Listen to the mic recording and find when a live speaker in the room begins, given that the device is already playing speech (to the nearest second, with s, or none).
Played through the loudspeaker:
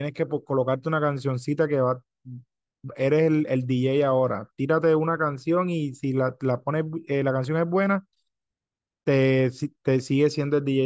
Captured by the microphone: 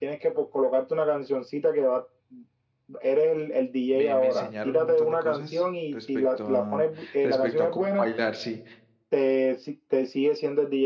4 s